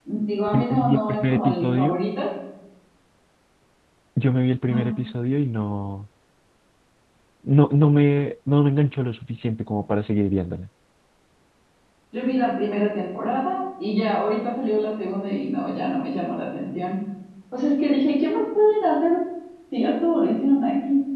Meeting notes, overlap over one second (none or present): present